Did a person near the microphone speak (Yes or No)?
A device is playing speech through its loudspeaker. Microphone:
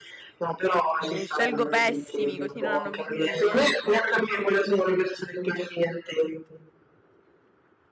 Yes